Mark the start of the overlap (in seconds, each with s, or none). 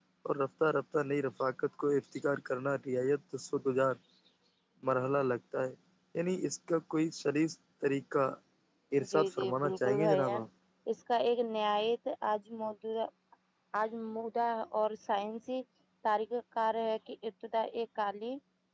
9.1 s